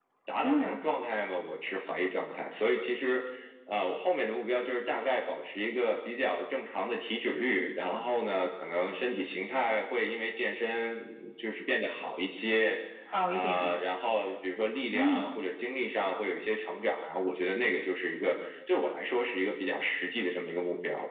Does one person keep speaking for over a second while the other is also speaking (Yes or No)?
No